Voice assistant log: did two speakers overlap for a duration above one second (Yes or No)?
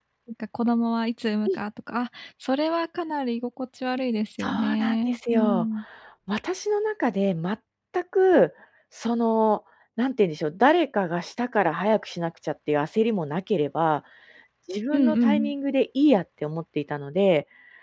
Yes